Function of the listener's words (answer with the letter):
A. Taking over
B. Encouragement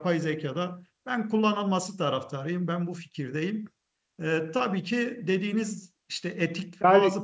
B